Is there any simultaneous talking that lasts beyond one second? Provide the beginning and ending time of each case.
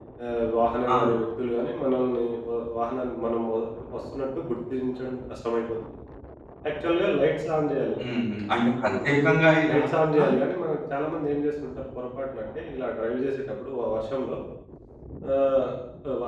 none

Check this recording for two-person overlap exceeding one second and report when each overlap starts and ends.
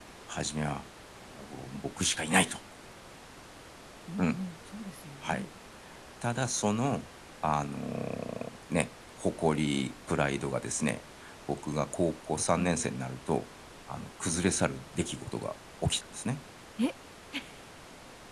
none

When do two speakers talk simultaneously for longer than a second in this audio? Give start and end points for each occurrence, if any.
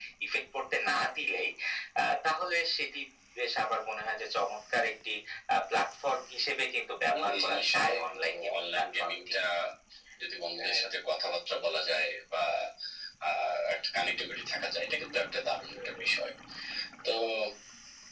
7.1-9.2

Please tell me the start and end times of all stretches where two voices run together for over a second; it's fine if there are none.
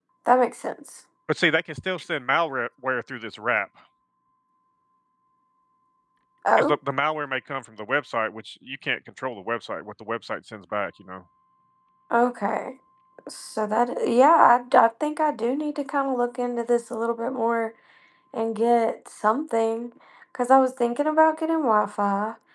none

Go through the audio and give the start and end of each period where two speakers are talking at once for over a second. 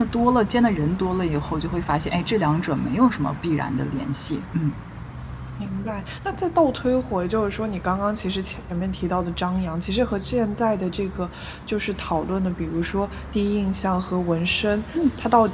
none

